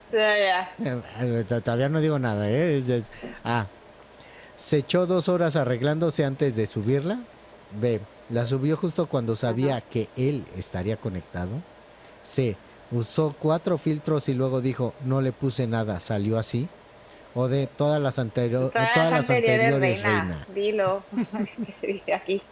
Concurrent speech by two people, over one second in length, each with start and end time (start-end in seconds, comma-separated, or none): 18.7-20.3